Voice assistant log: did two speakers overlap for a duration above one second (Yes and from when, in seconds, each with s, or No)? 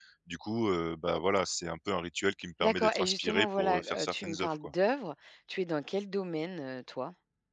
Yes, from 2.6 s